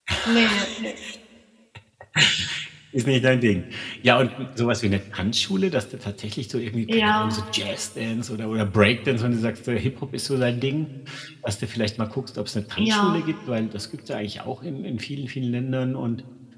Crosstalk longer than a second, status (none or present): none